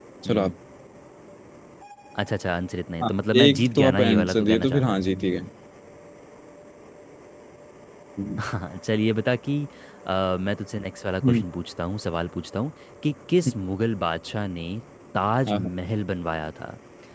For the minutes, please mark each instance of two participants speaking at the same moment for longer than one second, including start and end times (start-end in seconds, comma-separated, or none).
3.0-5.0